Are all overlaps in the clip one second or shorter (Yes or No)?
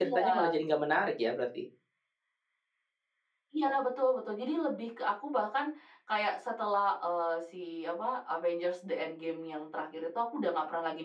Yes